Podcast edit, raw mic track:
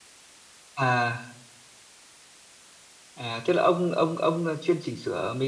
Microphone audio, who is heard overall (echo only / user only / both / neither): user only